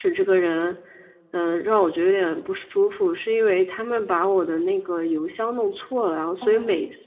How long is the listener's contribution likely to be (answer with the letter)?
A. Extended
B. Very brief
B